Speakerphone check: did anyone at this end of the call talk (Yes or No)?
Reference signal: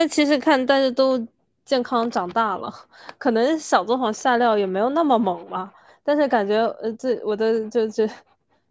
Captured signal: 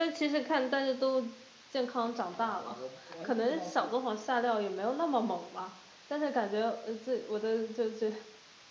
Yes